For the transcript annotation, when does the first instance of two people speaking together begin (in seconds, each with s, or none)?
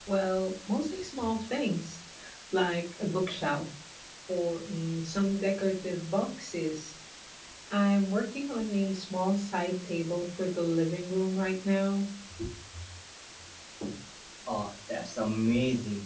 none